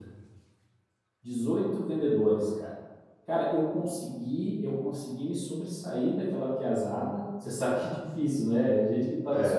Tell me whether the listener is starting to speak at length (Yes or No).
Yes